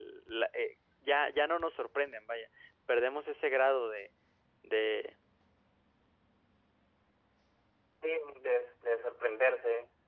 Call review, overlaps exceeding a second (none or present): none